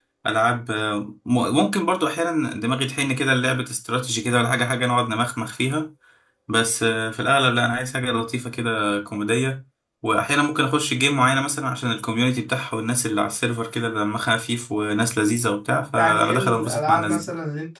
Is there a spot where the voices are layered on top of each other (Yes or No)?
Yes